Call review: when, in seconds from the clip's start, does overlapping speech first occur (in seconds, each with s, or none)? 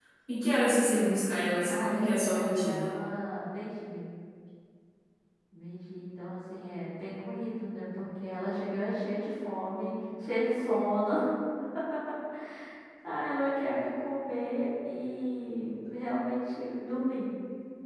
1.6 s